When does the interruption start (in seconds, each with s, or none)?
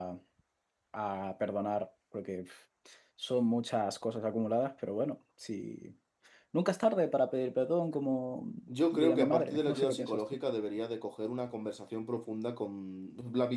8.9 s